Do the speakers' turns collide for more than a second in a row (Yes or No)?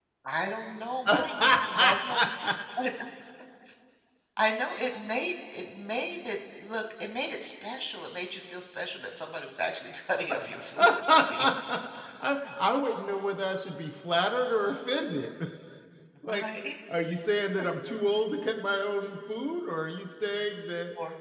Yes